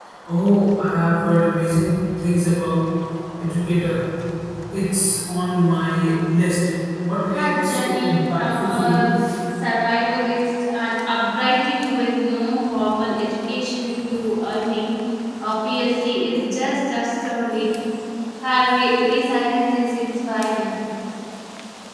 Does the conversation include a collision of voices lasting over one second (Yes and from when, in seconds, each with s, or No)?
Yes, from 7.3 s